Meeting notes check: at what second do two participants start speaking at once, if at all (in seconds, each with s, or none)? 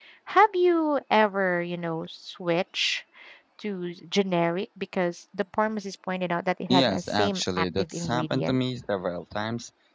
6.7 s